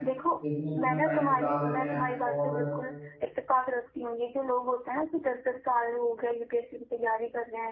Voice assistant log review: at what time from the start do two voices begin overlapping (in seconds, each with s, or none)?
0.8 s